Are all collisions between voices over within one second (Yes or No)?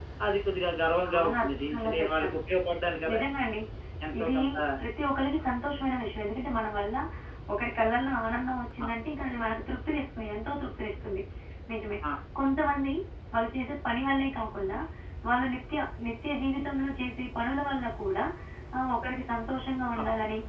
No